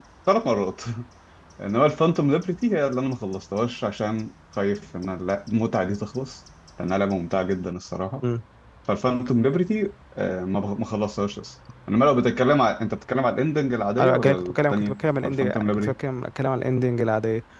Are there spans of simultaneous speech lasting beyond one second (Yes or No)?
Yes